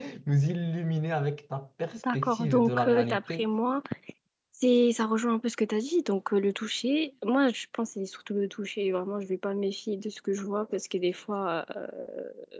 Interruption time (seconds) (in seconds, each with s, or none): 1.9 s